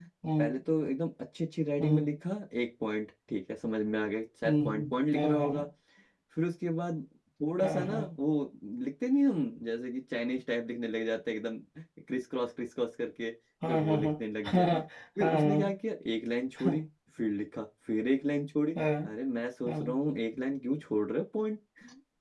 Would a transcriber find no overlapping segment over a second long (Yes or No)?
No